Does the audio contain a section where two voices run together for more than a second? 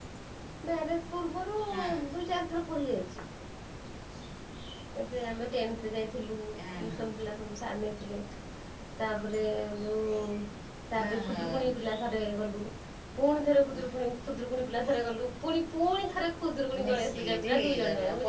Yes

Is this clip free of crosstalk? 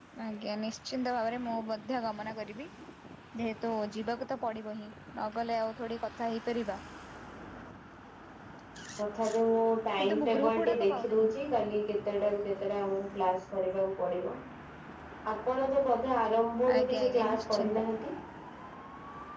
No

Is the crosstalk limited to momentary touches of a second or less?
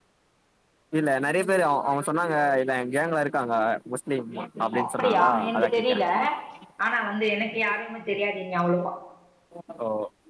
No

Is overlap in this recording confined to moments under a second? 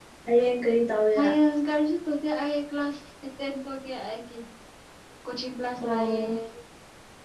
Yes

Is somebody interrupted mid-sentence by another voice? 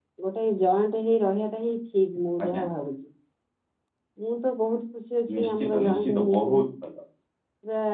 Yes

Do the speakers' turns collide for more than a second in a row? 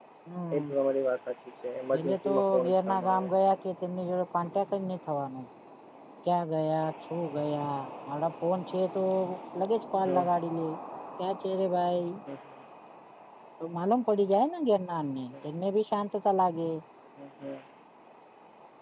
Yes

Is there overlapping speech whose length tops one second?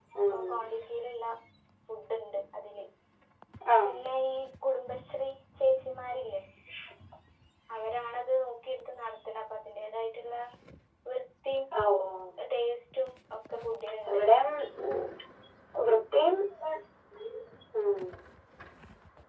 No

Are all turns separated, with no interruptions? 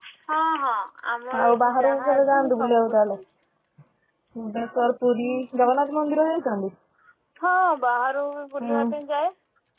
No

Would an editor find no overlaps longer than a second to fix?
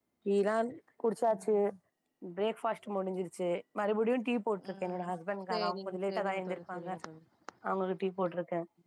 No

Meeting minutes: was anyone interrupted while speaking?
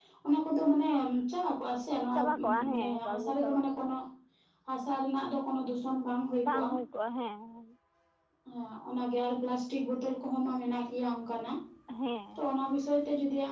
Yes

